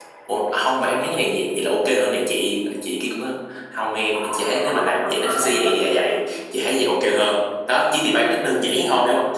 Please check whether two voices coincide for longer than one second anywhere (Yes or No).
No